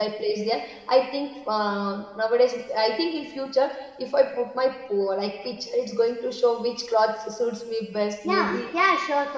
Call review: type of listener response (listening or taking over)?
taking over